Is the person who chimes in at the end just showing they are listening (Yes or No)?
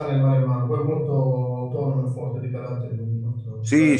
No